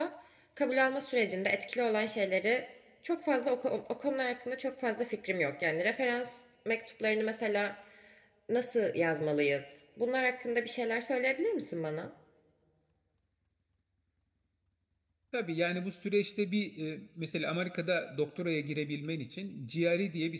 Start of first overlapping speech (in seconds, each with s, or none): none